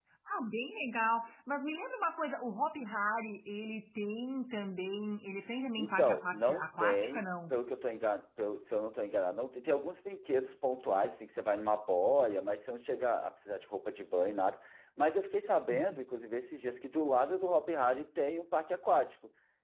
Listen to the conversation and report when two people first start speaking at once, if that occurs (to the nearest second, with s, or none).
6 s